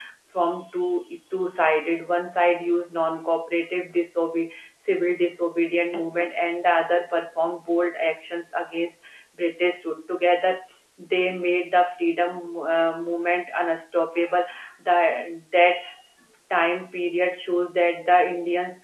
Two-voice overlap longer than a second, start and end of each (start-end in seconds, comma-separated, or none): none